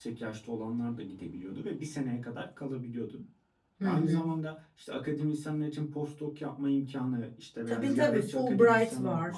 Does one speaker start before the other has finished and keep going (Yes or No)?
Yes